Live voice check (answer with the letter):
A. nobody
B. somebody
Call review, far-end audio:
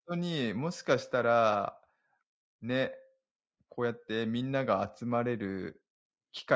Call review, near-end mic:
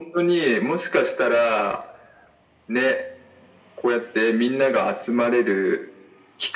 A